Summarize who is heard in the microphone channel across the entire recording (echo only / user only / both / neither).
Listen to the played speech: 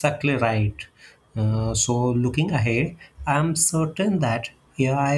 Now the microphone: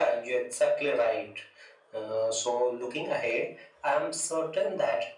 echo only